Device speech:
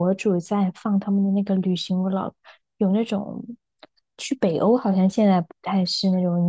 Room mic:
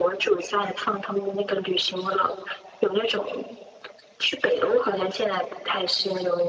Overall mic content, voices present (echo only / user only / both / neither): echo only